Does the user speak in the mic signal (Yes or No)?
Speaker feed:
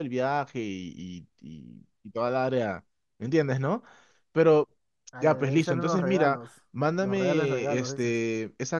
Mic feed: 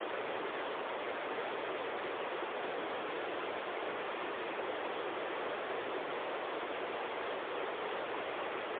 No